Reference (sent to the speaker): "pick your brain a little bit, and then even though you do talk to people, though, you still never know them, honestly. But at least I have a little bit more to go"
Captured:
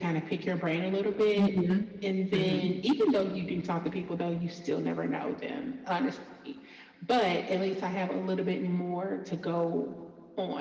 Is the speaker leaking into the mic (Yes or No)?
Yes